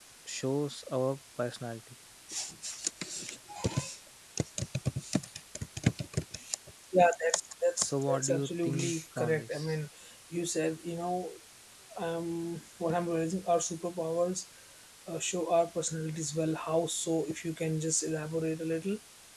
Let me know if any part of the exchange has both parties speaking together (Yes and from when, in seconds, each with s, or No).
Yes, from 7.8 s